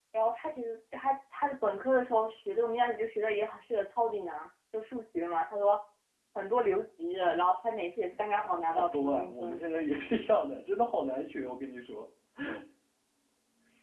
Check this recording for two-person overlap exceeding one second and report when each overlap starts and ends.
8.3-10.2

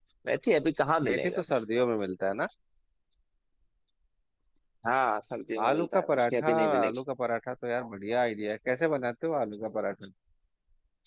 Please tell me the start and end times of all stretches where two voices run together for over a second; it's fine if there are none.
5.7-7.0

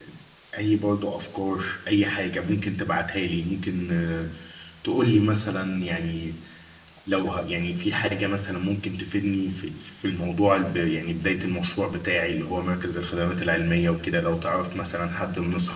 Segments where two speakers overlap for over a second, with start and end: none

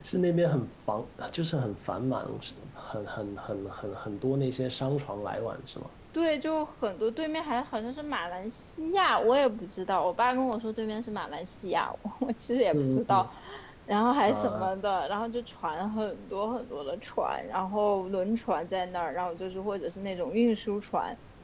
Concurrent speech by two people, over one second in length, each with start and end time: none

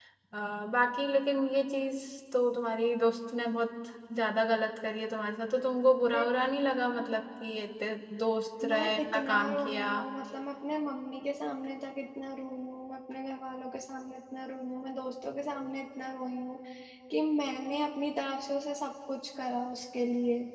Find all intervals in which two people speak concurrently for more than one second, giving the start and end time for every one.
8.7-9.9

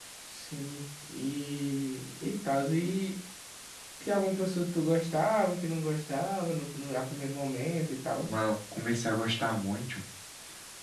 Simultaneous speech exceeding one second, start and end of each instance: none

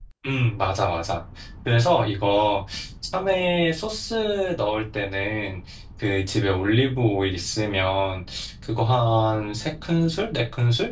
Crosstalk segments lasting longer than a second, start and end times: none

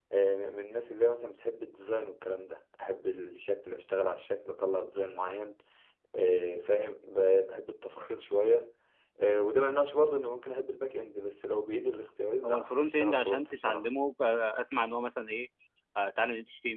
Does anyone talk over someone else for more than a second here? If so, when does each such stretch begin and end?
12.4-13.9

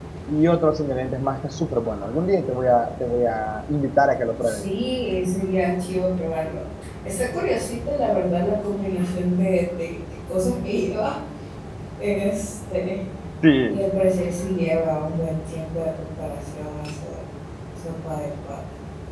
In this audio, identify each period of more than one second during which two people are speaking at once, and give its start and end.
none

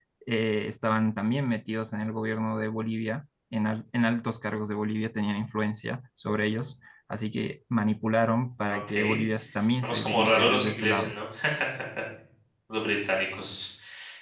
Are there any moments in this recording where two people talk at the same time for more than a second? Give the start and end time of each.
9.8-11.1

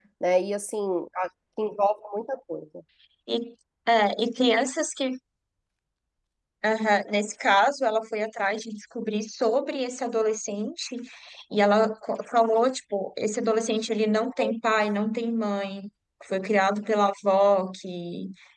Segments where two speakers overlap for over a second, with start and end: none

